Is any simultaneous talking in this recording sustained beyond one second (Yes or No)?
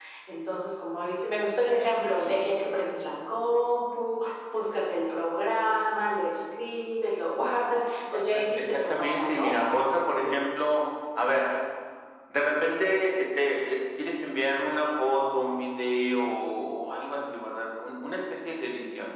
Yes